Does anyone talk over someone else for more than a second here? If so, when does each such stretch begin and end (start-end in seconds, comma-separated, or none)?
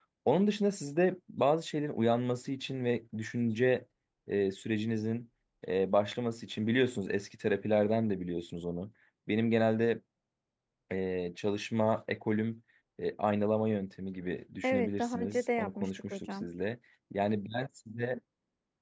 14.6-16.5